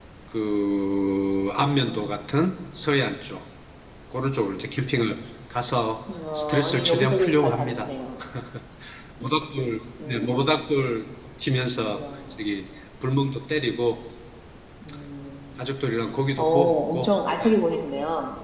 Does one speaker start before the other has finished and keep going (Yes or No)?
Yes